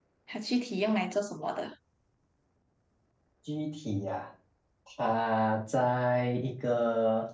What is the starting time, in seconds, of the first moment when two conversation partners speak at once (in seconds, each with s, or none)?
none